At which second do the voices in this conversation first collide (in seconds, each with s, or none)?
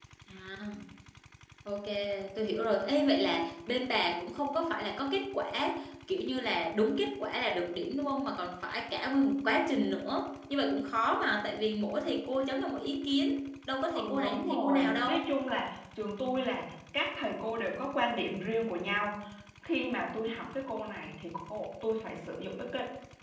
13.9 s